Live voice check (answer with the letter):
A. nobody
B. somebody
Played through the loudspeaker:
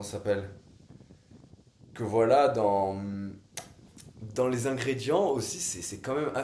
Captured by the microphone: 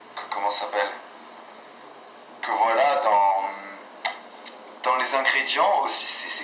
A